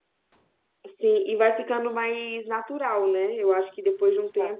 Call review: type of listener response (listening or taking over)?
listening